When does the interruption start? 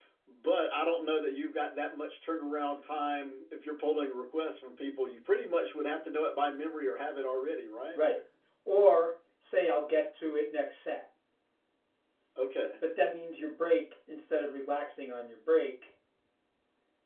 none

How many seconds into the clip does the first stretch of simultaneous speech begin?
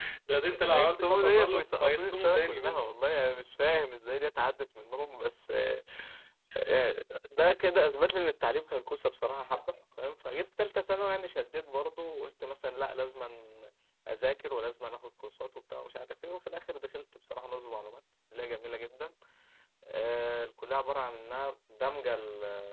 0.7 s

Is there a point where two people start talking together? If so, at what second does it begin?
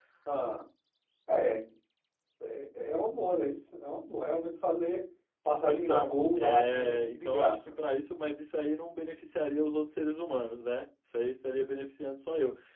5.7 s

